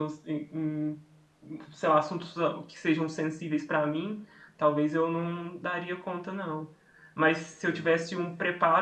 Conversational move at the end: listening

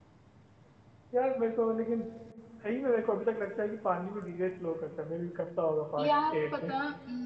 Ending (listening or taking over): taking over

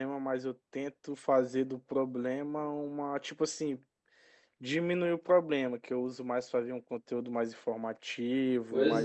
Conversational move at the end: taking over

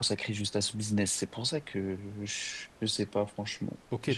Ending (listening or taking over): taking over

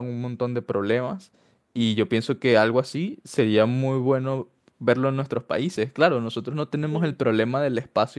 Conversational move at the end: listening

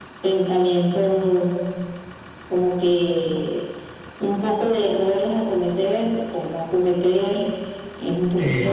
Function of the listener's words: taking over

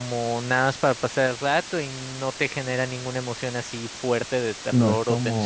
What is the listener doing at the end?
taking over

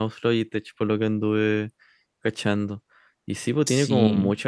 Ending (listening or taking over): listening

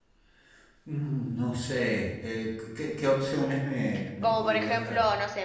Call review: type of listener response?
taking over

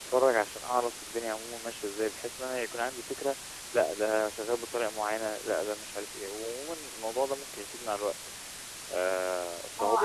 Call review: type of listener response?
taking over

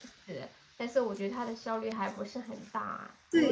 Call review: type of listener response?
taking over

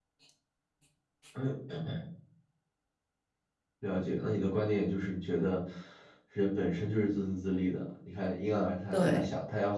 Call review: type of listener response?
listening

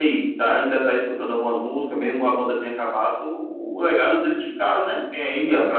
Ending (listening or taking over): listening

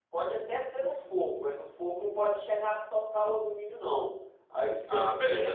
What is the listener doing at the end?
listening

